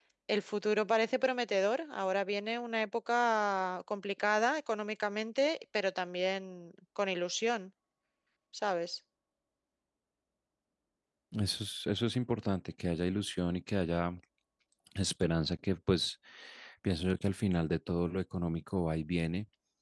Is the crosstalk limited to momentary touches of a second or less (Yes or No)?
Yes